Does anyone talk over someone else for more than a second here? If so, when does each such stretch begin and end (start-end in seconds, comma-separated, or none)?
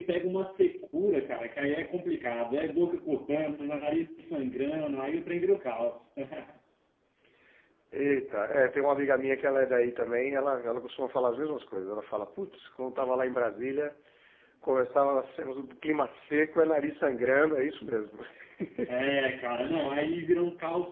none